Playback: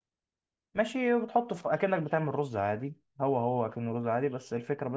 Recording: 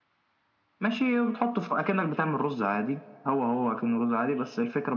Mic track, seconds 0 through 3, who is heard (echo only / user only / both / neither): echo only